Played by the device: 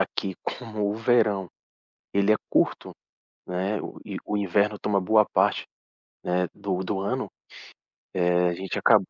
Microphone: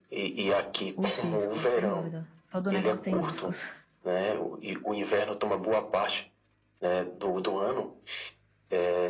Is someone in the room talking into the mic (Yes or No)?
Yes